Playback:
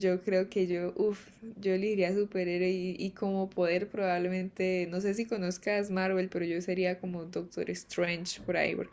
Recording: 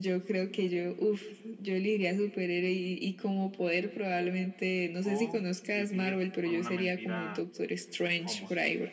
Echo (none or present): present